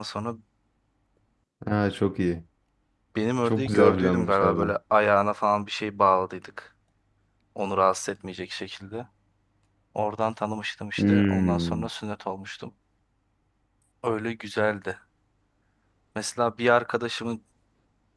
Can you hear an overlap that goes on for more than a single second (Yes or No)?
Yes